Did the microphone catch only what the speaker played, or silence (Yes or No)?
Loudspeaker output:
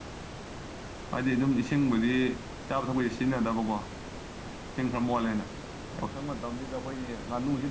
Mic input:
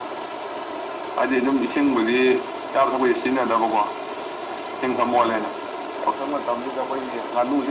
No